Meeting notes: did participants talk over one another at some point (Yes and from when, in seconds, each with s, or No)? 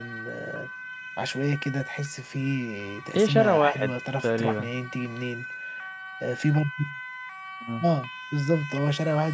Yes, from 3.1 s